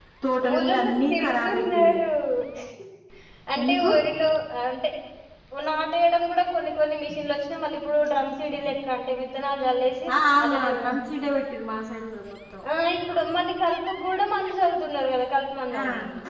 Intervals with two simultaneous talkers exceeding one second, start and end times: 0.5-2.0

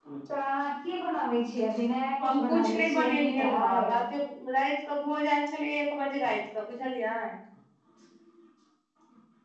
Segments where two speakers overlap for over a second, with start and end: 2.2-3.9

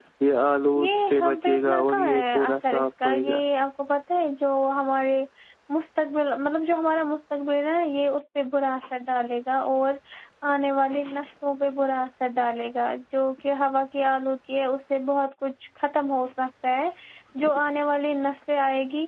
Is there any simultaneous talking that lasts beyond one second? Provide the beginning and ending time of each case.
0.8-3.4

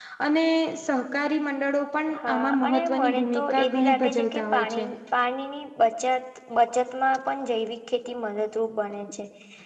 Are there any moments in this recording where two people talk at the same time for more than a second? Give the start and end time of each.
2.2-4.9

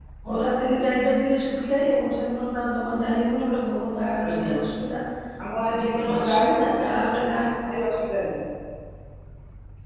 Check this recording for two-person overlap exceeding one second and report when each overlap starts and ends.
5.6-6.9

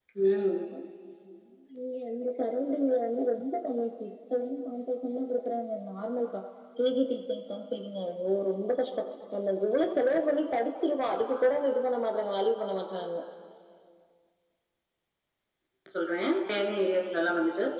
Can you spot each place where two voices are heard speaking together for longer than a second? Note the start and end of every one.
none

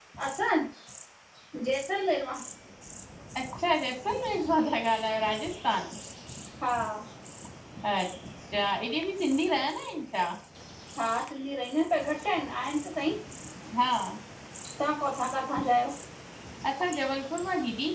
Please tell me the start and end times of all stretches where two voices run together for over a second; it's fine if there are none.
none

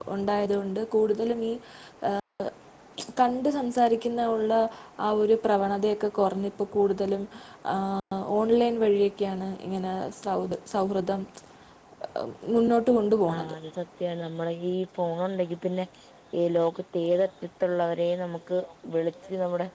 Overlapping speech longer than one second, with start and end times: none

